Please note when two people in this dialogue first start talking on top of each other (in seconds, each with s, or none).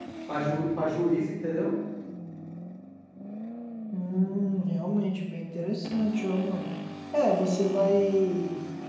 none